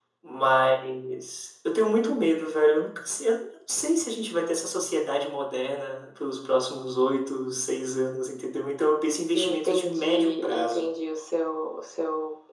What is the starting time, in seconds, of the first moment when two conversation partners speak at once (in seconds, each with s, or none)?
9.3 s